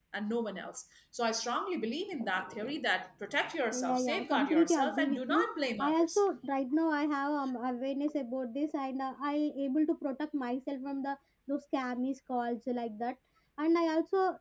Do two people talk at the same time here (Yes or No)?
Yes